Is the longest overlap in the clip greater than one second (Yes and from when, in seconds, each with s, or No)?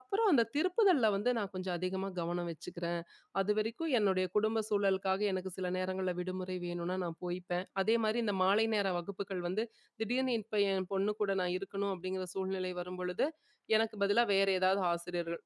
No